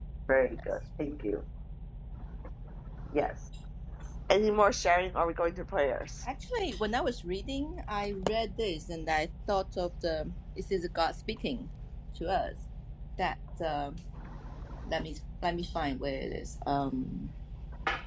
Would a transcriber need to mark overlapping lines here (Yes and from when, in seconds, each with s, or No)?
No